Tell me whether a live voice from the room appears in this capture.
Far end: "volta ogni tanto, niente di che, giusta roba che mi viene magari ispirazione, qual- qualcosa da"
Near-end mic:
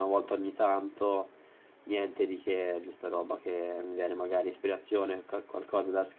No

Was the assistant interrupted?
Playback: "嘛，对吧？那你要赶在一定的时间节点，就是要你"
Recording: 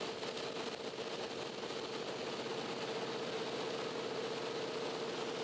No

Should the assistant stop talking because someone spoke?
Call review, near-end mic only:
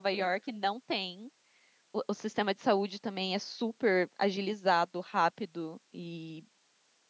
Yes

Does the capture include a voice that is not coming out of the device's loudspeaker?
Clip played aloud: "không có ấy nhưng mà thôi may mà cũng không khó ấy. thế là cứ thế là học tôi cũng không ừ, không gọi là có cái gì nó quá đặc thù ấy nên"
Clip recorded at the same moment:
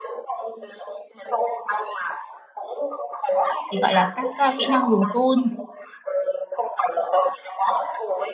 Yes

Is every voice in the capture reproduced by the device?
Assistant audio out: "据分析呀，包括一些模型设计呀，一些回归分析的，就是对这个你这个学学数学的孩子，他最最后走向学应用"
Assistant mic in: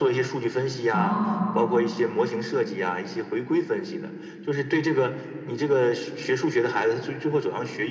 No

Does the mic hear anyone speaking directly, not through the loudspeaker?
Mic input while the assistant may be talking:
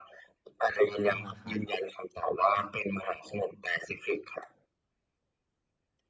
Yes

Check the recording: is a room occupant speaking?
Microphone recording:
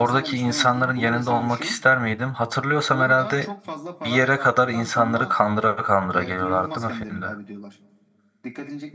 Yes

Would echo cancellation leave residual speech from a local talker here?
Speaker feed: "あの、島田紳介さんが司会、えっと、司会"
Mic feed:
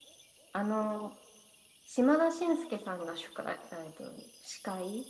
No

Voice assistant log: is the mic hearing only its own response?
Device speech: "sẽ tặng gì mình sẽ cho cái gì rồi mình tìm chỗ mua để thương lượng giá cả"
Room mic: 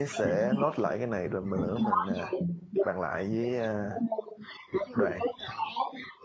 No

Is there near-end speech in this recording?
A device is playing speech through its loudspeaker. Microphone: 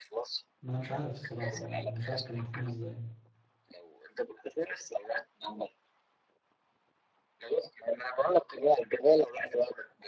Yes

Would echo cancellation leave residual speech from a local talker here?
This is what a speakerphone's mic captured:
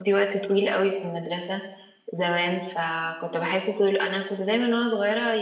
Yes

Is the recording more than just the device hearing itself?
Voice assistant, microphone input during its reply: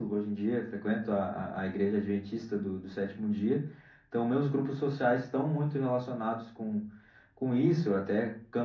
No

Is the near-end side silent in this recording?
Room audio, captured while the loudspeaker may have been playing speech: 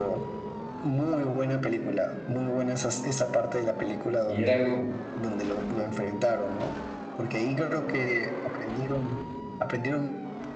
No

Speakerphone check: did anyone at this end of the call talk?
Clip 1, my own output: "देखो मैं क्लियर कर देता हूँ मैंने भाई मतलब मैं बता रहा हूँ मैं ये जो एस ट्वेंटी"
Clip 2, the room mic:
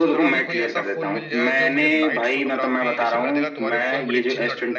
Yes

